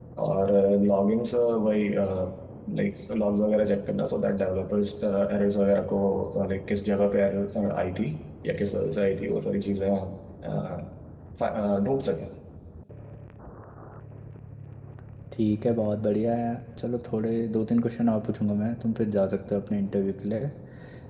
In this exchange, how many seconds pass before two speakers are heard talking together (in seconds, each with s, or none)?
none